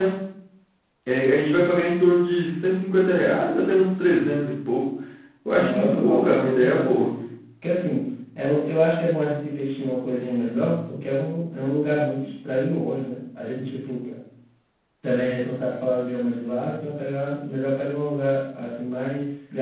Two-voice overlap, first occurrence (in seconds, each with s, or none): 5.5 s